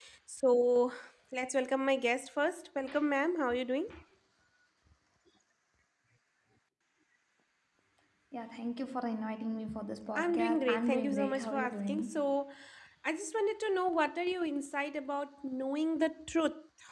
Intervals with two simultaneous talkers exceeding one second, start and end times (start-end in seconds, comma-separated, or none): 10.2-12.3